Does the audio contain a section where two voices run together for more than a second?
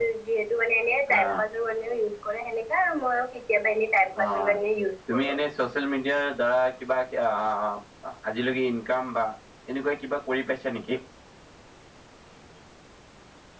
No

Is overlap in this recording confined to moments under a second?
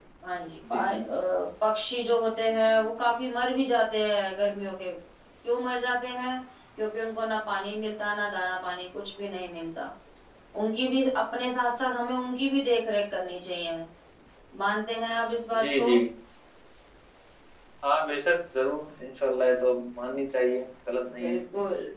Yes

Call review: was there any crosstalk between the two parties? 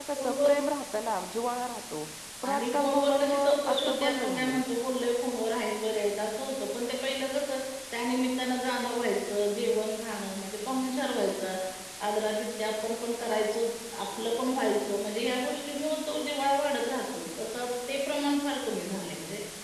Yes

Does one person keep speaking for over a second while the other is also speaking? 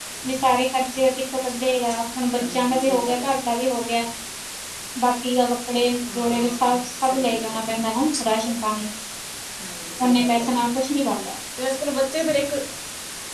Yes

